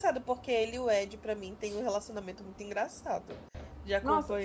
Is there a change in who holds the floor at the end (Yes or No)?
Yes